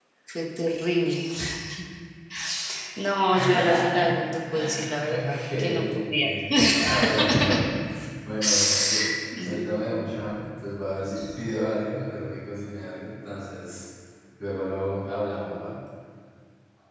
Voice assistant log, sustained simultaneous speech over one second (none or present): present